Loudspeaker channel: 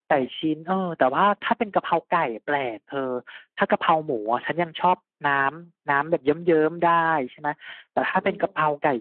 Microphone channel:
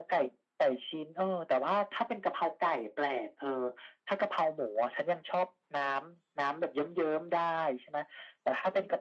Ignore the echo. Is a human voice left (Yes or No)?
No